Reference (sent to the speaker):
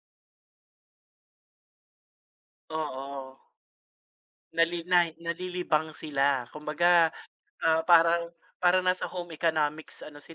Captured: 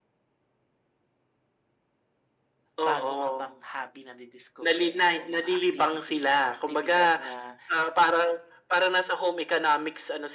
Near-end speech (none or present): present